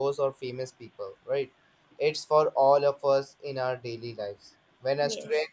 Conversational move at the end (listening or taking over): listening